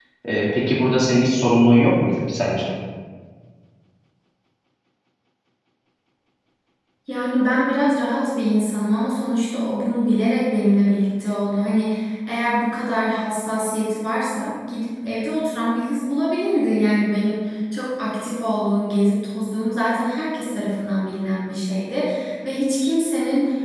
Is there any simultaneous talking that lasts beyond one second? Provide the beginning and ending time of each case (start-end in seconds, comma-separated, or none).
none